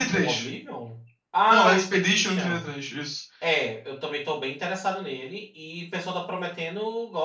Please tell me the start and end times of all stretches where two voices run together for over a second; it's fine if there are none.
1.5-2.7

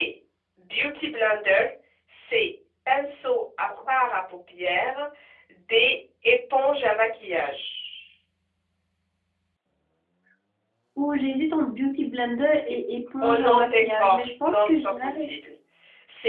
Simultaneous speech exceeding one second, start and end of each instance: 13.2-15.1

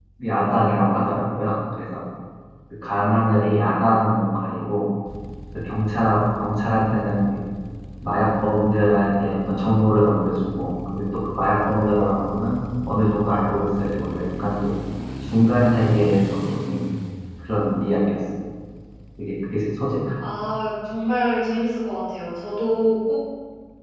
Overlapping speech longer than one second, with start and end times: none

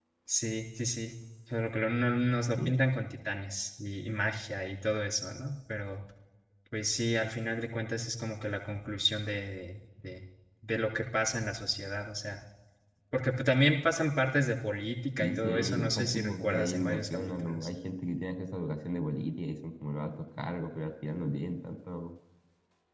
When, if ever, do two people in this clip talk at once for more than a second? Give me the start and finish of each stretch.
15.2-17.7

